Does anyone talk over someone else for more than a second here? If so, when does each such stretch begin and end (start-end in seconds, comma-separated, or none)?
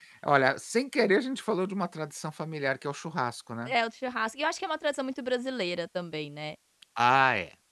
none